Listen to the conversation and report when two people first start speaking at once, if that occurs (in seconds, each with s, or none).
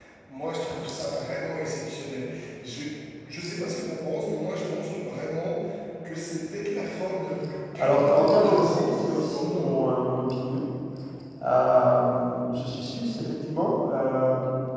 7.7 s